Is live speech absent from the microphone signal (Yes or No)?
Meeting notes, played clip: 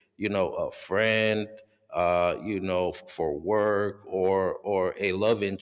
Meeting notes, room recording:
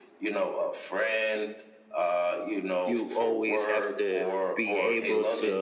No